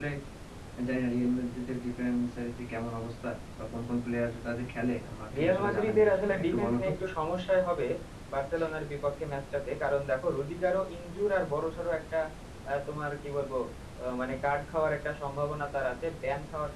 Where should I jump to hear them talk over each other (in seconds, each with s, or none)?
5.3 s